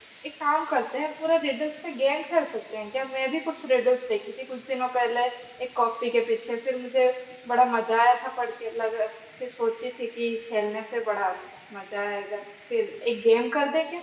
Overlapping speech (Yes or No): No